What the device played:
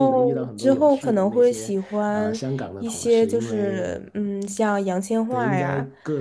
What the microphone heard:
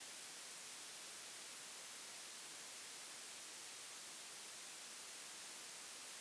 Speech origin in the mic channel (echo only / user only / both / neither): neither